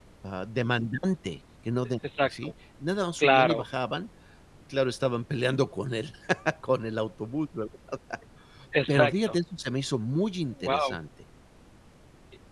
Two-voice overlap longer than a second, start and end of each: none

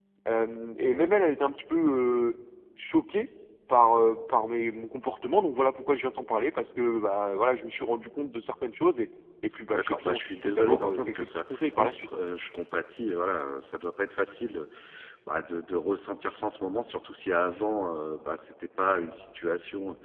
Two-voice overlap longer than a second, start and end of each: 9.7-12.1

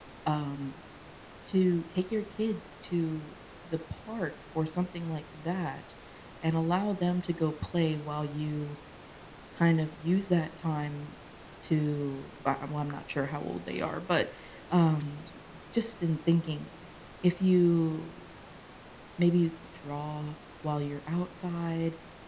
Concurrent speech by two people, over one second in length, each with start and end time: none

